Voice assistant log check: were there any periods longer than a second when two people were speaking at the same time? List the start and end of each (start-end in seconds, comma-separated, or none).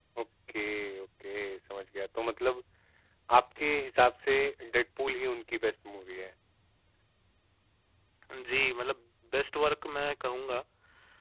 none